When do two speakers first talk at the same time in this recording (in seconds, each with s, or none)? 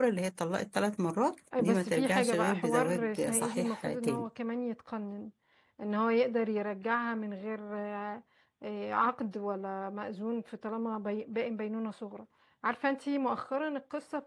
1.5 s